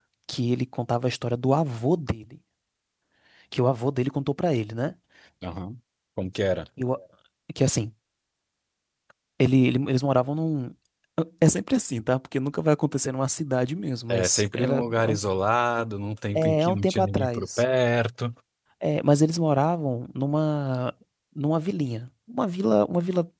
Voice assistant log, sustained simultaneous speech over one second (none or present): present